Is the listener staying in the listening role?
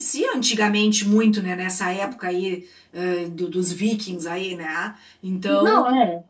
No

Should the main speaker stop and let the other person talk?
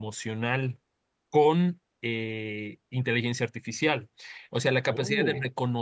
No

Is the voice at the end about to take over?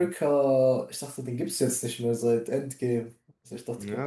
Yes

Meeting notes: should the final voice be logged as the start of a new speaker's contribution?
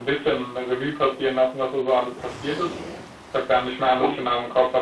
No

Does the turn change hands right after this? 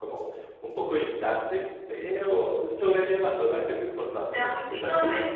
Yes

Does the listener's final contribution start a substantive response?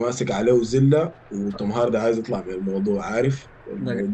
No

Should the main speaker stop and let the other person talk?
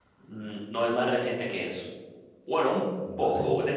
No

